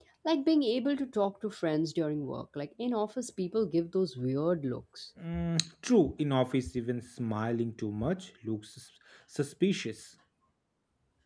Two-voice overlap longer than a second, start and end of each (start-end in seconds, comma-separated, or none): none